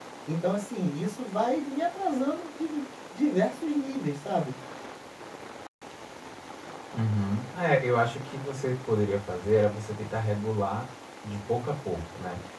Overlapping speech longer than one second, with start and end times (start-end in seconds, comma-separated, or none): none